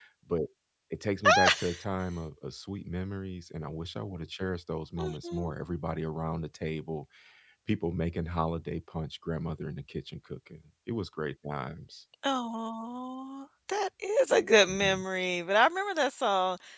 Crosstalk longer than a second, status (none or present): none